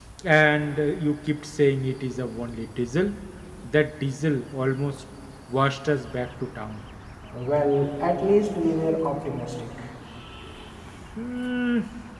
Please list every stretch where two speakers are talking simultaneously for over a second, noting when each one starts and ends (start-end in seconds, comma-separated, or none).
none